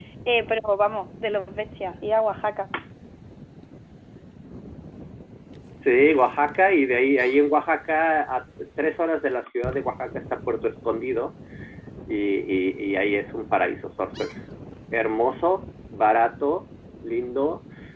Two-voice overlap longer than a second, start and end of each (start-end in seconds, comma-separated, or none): none